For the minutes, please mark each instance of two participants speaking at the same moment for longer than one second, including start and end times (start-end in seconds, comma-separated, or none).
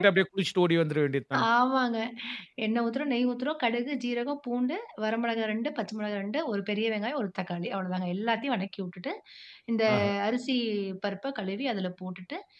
none